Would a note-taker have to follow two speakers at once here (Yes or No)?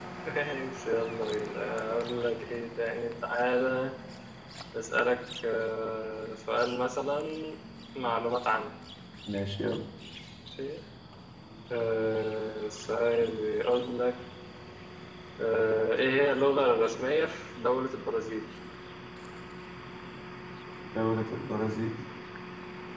No